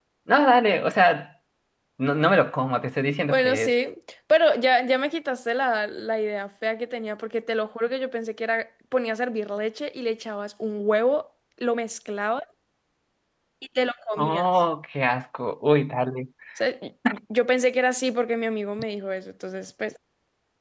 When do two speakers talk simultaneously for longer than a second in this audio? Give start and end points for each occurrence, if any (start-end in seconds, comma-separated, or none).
none